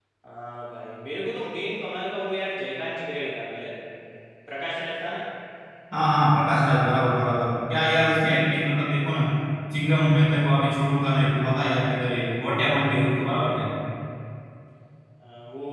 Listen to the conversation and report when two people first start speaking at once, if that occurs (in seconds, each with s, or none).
none